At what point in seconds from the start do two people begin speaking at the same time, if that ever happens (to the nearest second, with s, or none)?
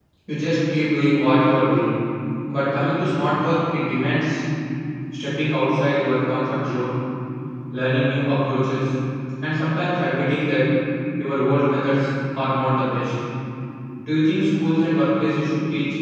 none